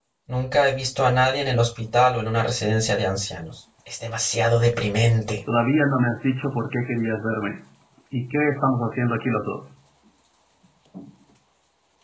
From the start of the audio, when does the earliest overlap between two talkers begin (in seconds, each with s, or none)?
none